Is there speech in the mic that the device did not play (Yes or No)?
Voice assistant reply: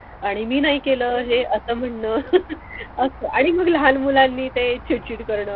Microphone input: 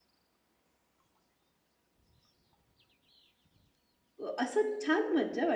Yes